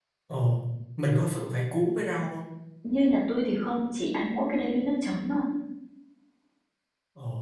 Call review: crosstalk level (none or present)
none